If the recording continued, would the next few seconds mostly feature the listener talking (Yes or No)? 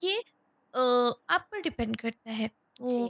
No